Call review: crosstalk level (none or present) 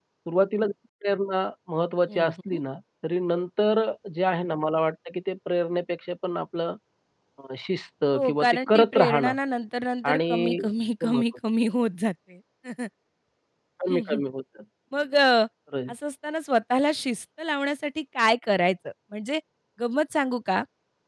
present